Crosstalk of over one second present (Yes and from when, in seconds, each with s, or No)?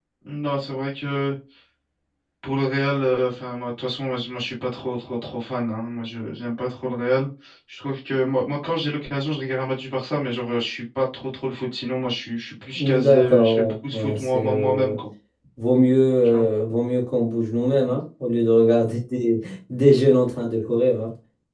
Yes, from 12.8 s